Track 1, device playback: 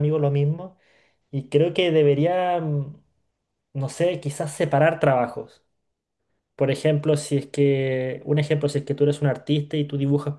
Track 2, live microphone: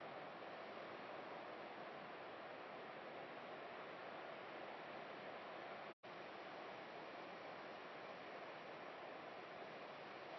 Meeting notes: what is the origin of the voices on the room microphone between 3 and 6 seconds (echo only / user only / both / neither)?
neither